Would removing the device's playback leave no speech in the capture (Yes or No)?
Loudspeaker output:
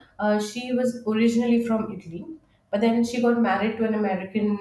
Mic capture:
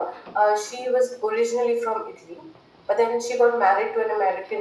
Yes